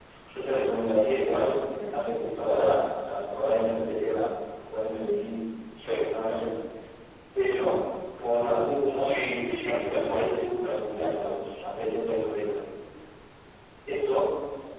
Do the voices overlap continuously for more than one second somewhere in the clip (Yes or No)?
Yes